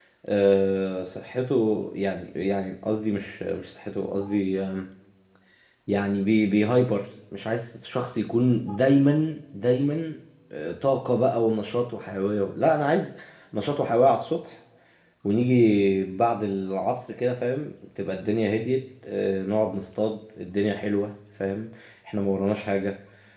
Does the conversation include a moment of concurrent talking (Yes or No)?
No